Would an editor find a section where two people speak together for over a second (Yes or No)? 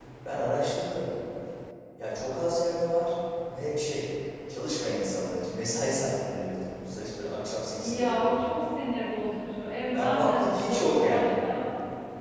Yes